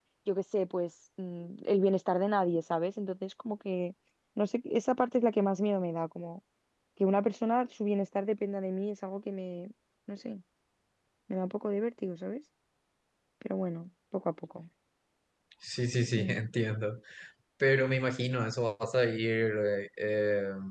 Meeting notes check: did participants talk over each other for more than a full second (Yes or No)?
No